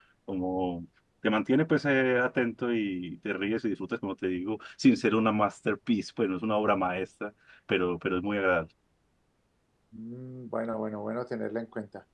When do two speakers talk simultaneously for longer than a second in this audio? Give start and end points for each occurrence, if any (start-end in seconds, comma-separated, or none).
none